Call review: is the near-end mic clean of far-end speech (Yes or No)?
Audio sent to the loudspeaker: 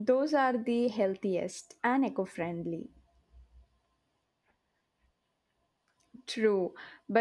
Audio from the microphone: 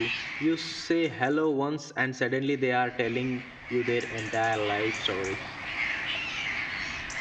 Yes